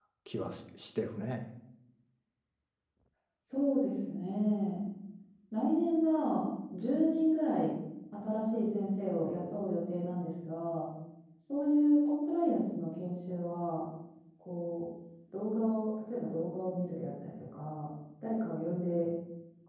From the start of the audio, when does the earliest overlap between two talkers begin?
none

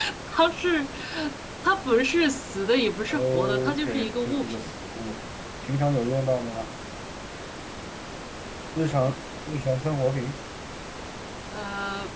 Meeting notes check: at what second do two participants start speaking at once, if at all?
3.1 s

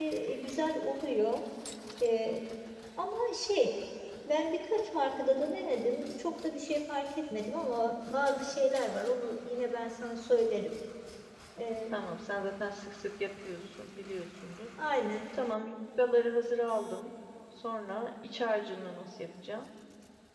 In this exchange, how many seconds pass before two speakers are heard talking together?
none

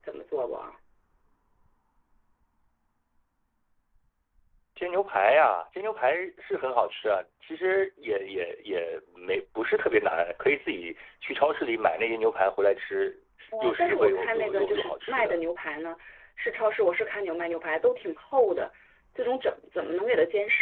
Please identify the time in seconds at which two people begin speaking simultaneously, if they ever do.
13.5 s

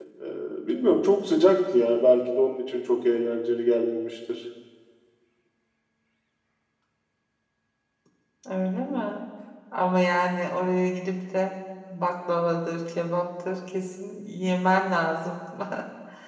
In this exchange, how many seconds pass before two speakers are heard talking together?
none

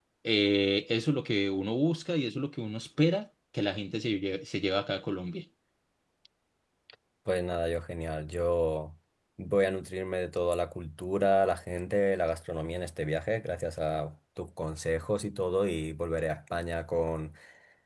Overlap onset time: none

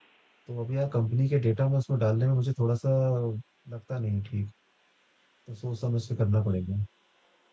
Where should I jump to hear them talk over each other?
none

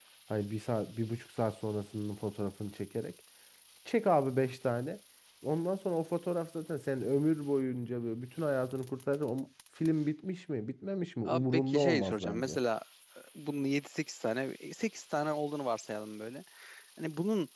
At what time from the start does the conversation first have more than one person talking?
11.2 s

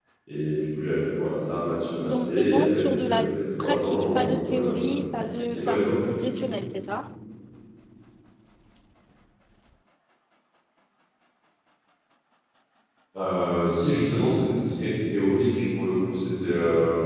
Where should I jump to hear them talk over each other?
2.0 s

